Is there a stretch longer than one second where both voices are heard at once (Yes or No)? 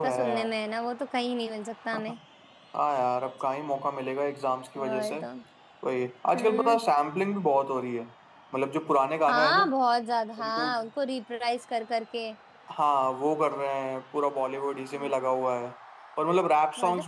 No